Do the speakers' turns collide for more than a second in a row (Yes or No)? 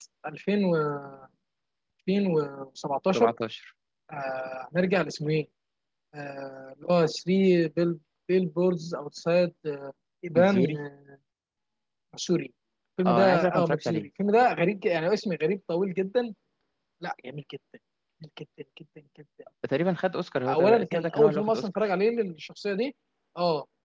Yes